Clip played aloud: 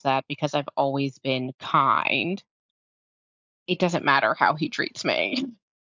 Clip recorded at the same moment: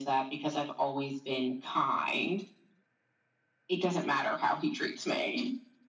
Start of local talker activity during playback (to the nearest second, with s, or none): none